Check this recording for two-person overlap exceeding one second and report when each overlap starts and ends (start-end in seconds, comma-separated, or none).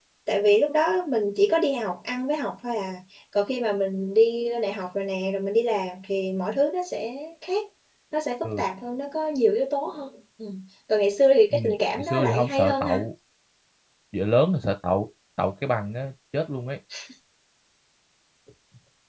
11.5-13.0